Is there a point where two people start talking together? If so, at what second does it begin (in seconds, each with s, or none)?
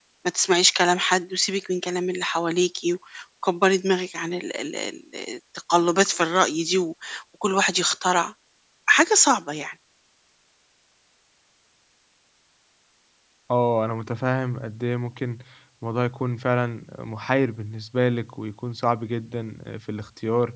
none